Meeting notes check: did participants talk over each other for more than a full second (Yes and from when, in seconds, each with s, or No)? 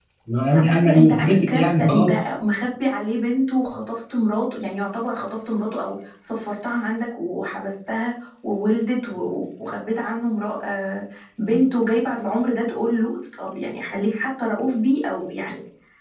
Yes, from 0.7 s